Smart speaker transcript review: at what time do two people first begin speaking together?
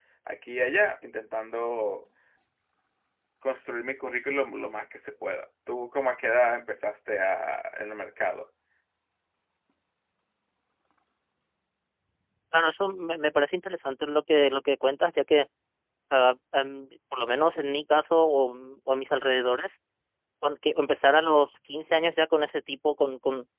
none

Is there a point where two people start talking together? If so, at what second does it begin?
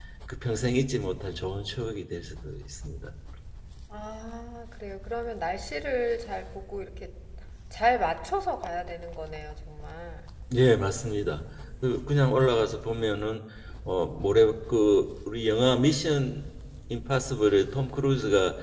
none

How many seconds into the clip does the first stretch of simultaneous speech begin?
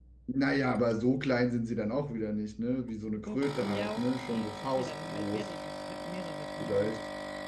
3.3 s

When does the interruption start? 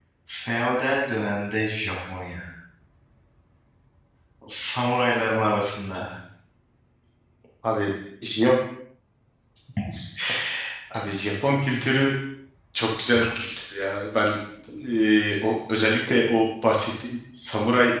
none

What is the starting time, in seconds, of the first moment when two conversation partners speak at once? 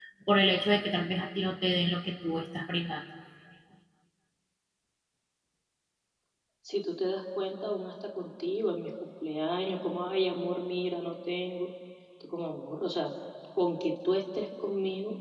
none

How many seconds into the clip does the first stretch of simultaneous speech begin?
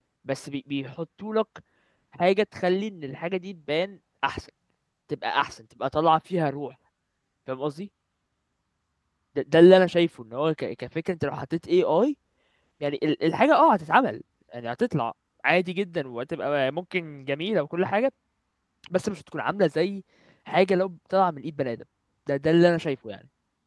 none

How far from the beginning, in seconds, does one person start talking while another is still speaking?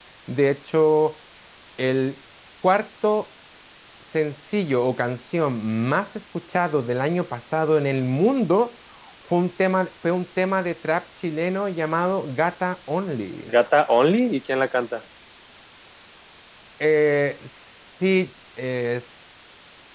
none

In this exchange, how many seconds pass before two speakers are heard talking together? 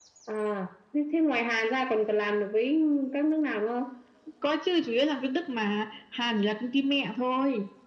none

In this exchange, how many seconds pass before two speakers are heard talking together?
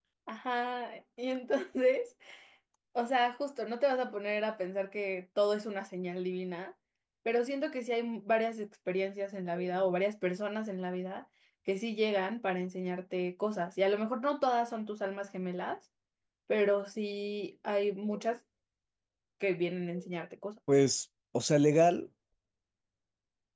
none

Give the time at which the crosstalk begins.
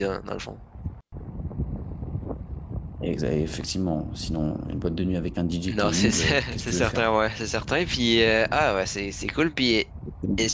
5.7 s

